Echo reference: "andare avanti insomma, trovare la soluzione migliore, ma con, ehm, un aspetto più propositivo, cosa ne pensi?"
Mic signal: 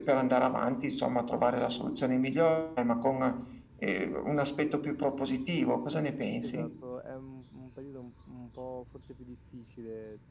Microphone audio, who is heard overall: both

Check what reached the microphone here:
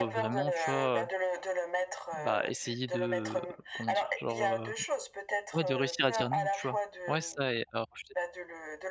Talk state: both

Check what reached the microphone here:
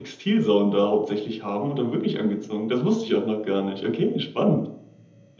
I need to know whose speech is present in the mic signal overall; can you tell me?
user only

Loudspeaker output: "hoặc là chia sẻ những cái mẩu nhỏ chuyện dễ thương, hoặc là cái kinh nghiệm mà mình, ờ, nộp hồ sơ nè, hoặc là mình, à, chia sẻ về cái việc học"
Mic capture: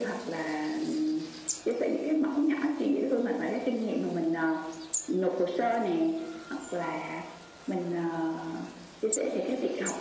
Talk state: echo only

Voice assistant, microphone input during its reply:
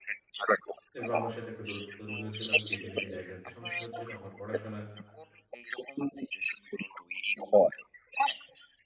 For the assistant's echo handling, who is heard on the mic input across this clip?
both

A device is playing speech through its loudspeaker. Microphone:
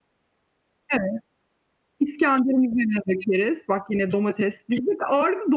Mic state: user only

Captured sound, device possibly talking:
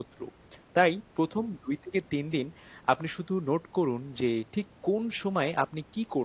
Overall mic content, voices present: user only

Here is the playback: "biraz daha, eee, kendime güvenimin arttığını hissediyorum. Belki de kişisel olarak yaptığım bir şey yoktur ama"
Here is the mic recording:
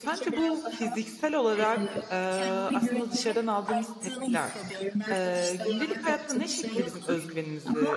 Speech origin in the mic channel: both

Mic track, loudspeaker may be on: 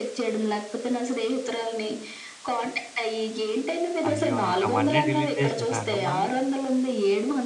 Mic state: both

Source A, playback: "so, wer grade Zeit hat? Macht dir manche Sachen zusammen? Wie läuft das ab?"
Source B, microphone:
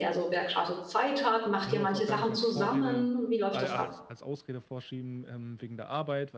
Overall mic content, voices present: both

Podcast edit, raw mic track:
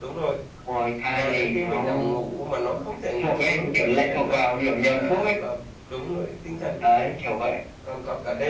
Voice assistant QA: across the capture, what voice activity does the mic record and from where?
echo only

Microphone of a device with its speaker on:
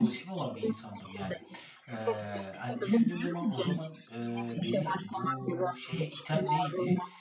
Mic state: both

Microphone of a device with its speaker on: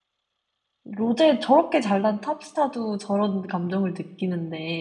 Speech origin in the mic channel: user only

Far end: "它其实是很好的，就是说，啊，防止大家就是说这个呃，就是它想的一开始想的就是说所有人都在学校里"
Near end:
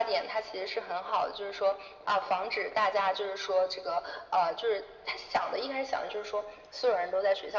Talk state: echo only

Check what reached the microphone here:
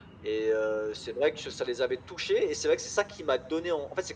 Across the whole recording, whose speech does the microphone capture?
echo only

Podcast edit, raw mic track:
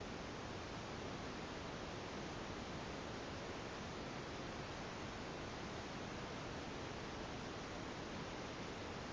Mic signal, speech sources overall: neither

